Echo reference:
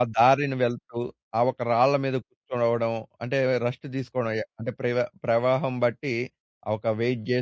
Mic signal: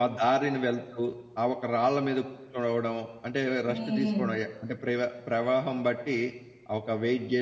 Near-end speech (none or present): present